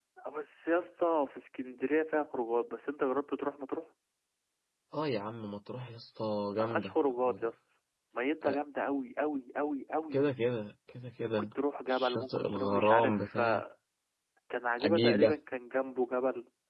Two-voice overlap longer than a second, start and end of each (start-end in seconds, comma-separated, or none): 11.9-13.6